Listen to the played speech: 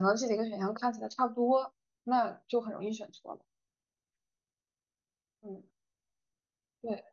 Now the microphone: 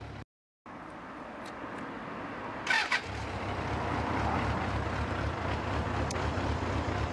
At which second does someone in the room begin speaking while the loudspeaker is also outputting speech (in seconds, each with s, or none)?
none